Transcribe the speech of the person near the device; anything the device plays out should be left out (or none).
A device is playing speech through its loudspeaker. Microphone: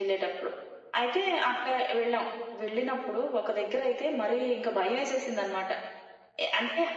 none